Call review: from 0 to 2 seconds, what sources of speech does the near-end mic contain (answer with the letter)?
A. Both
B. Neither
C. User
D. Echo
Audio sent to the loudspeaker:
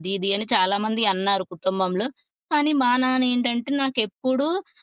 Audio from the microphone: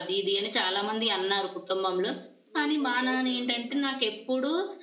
D